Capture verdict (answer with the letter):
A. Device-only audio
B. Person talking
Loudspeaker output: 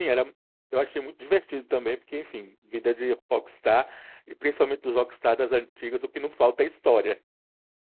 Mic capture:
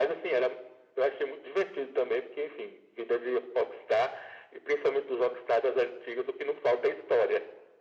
A